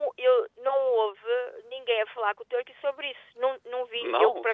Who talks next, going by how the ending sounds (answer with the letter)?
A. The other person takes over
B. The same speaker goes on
B